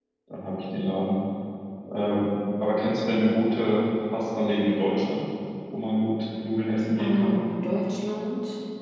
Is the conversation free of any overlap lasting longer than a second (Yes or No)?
Yes